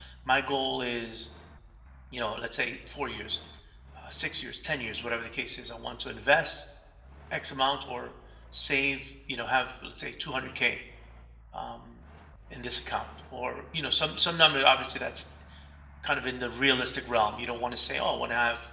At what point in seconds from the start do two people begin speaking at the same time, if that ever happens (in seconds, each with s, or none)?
none